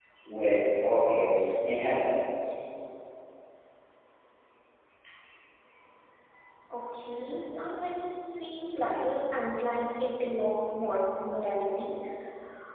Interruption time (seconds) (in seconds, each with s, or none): none